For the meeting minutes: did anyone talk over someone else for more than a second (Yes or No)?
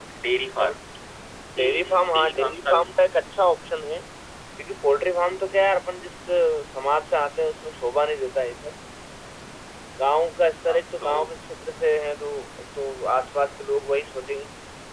Yes